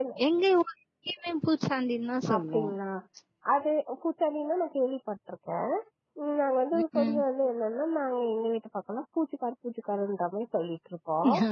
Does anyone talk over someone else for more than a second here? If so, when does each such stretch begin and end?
none

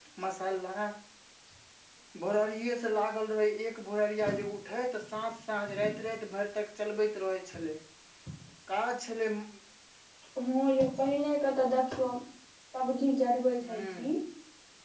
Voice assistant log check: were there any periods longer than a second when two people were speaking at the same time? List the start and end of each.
none

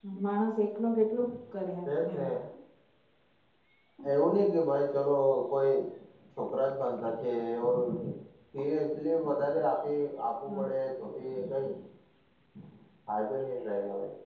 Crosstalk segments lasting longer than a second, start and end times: none

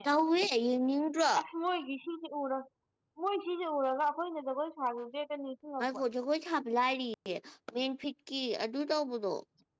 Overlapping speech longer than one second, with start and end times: none

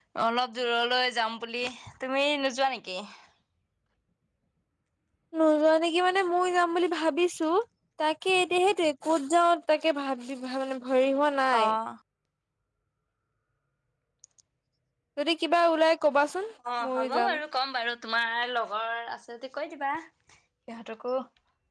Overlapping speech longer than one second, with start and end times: none

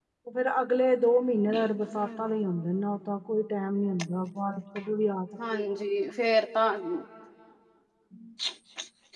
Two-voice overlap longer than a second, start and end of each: none

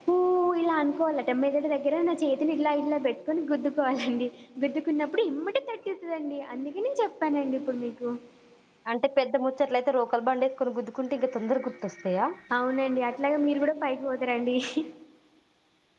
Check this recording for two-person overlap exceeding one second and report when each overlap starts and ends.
none

